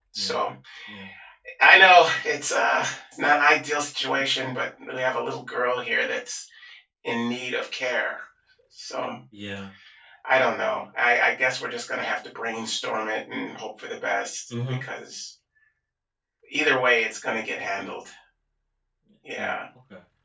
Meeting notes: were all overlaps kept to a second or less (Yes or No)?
Yes